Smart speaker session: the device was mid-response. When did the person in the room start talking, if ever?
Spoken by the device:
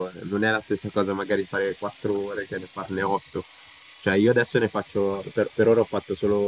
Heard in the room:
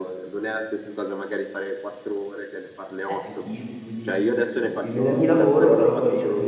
3.0 s

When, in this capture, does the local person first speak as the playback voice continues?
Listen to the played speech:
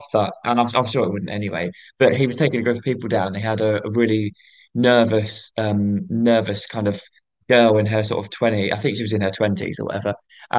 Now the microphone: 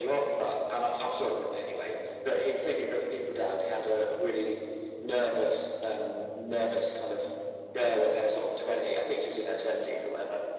none

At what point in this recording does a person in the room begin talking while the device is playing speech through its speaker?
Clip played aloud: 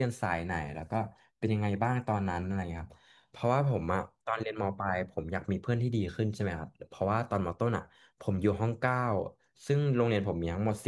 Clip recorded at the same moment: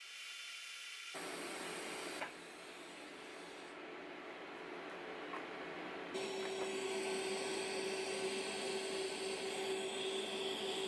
none

